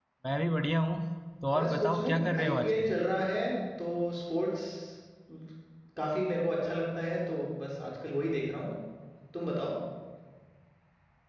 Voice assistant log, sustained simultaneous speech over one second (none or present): present